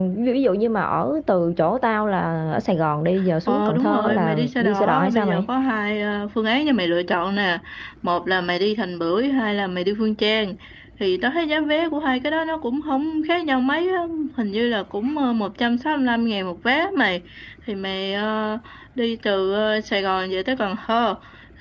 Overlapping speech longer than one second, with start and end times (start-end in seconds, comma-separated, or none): 3.5-5.4